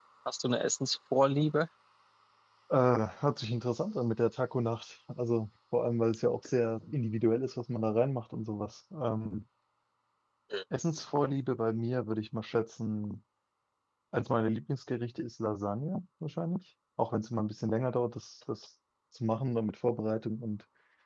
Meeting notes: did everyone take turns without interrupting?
Yes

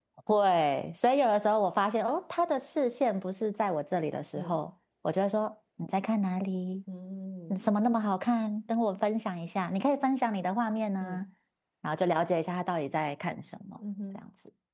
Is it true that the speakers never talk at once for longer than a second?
Yes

